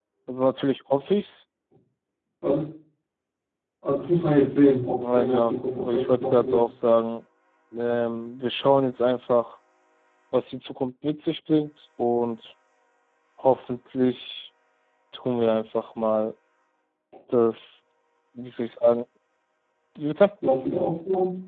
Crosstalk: present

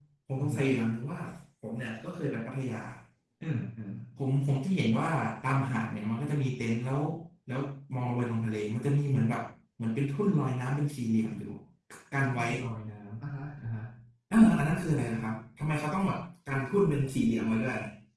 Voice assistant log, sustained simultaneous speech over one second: none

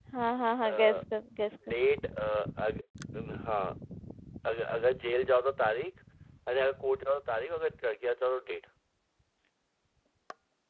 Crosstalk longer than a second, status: none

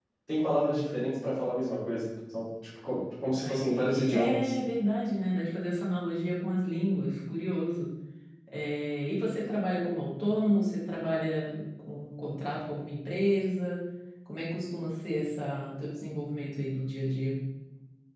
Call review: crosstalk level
present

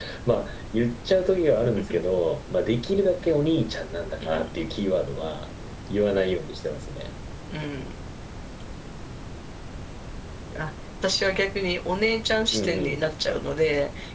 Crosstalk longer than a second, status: none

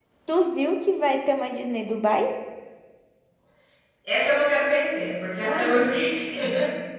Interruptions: none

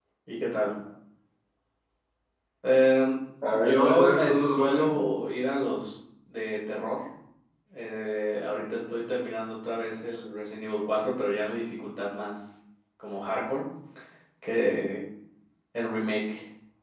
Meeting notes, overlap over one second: present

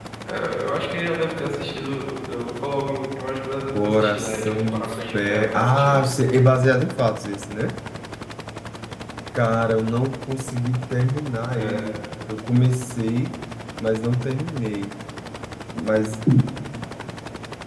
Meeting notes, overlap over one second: present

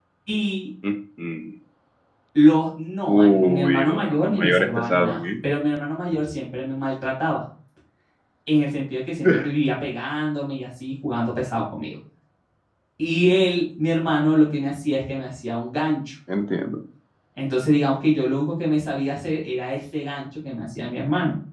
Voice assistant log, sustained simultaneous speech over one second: present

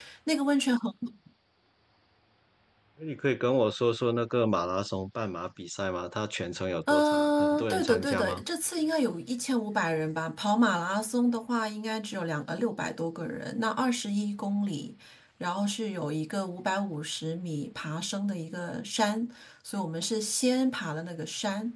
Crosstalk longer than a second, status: present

